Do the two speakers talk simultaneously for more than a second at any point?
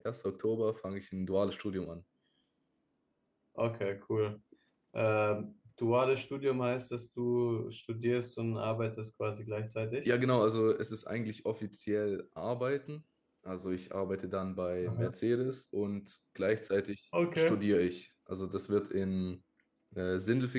No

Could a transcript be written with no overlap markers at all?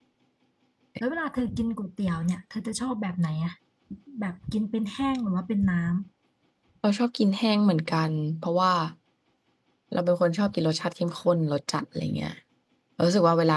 Yes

